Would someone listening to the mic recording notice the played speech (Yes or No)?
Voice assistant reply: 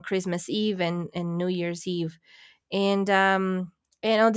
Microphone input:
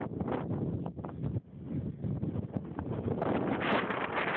No